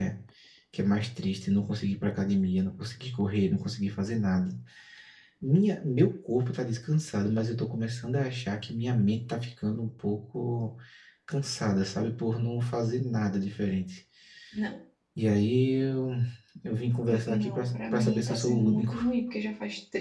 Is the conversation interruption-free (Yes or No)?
No